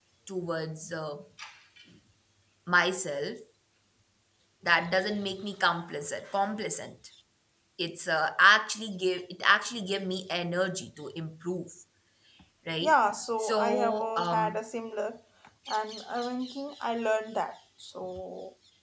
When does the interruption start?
13.4 s

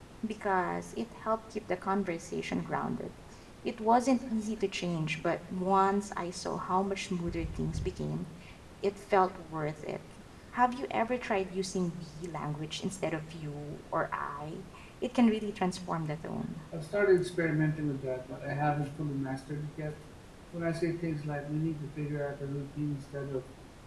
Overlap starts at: none

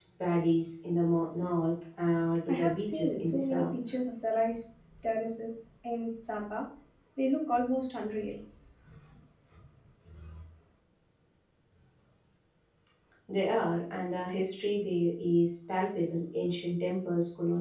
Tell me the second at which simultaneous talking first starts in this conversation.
2.5 s

